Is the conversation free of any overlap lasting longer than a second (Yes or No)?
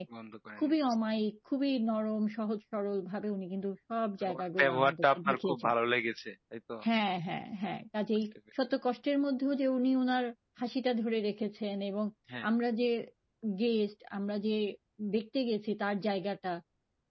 No